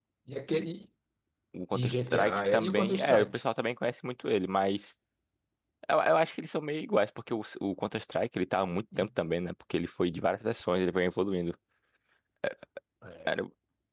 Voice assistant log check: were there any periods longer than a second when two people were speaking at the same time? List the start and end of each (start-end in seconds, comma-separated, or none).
1.7-3.4